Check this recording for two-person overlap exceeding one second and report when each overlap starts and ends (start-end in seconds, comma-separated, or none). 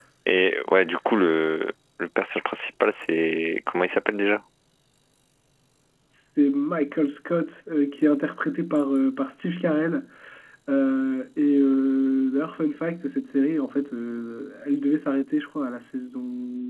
none